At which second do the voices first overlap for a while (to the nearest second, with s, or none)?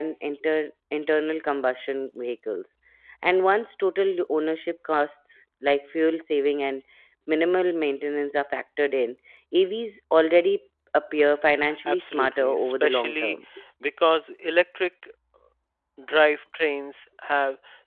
12 s